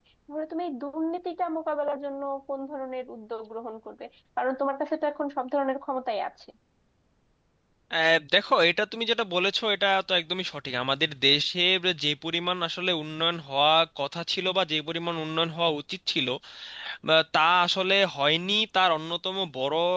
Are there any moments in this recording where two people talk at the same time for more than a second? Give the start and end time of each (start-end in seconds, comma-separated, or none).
none